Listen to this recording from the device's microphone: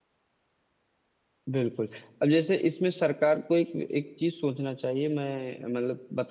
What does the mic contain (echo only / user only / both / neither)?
user only